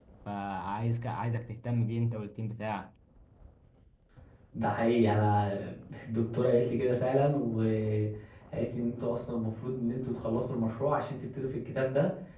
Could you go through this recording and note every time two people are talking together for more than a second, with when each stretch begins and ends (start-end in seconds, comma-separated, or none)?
none